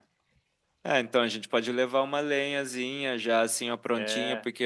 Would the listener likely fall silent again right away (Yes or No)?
Yes